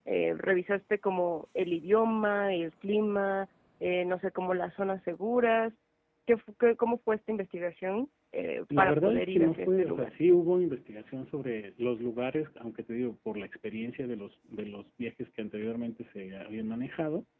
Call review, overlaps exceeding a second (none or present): present